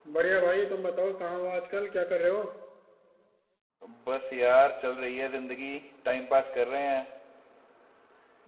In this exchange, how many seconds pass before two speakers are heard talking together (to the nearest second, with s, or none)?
none